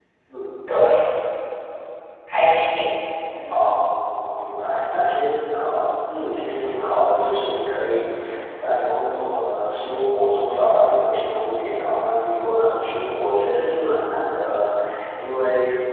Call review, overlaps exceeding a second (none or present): none